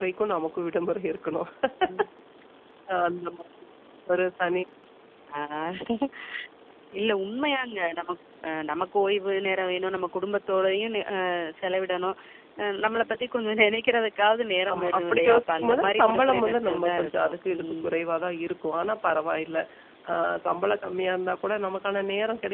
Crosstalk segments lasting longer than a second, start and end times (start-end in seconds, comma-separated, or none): 14.7-17.8